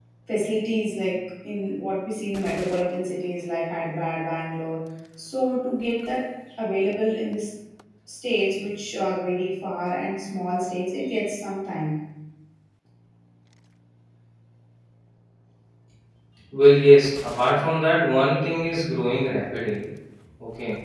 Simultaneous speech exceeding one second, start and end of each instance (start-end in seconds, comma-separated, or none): none